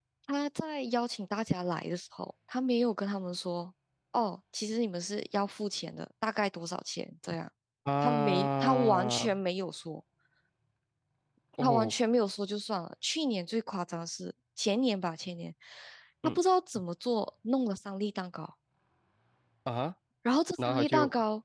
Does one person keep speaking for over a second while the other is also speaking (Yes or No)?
Yes